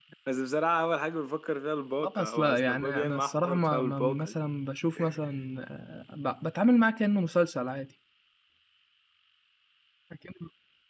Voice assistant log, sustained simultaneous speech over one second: present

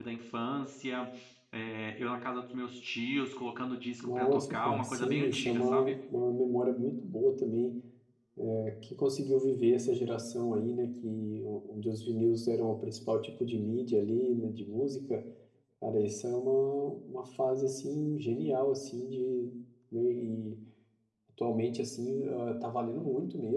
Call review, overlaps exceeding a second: present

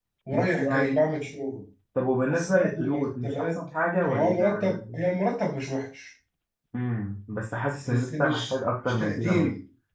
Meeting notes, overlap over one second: present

